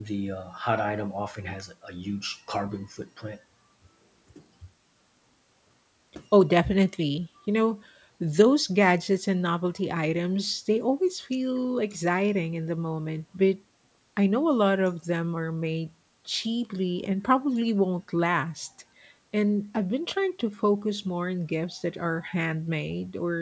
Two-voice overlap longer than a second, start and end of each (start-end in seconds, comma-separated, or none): none